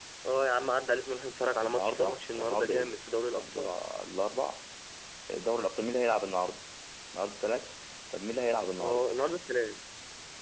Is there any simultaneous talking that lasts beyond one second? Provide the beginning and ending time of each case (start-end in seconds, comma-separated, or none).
1.6-3.6